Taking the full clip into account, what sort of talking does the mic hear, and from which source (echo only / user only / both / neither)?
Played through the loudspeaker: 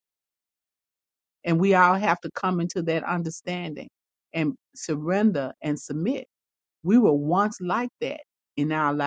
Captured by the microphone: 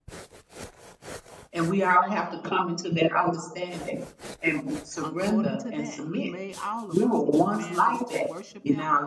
both